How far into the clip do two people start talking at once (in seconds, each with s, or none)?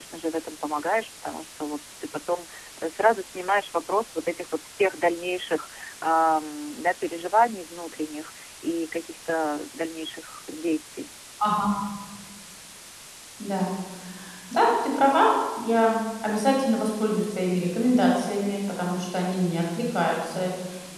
none